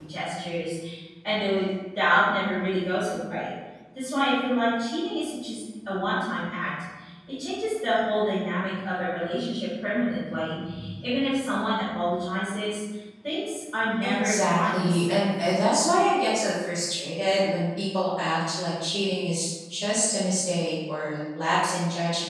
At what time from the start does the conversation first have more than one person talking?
14 s

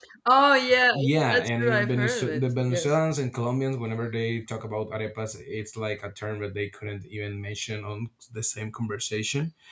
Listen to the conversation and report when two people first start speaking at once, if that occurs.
1 s

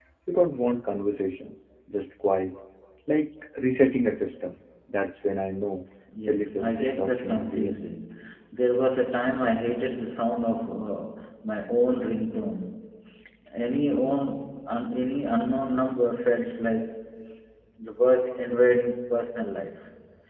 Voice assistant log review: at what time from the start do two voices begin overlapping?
6 s

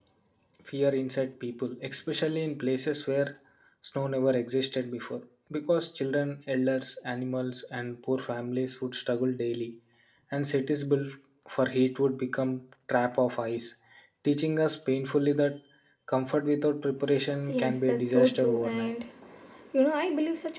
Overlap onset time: 17 s

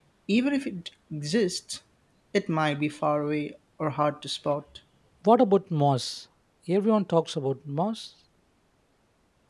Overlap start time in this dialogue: none

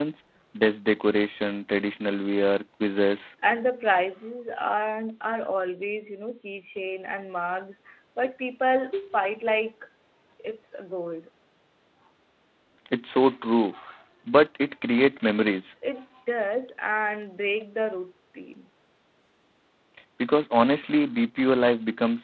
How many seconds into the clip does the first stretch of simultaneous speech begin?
none

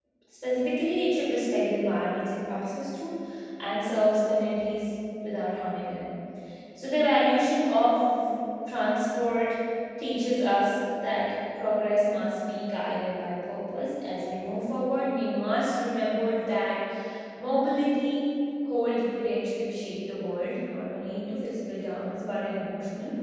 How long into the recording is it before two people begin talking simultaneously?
none

